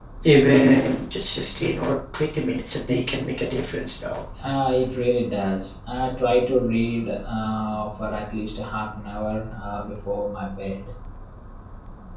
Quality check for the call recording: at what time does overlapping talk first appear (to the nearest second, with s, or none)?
none